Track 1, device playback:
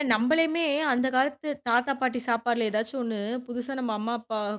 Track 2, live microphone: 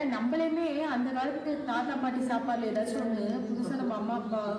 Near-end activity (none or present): present